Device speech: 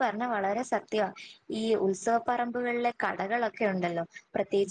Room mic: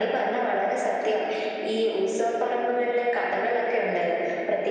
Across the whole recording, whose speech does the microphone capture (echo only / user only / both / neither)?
echo only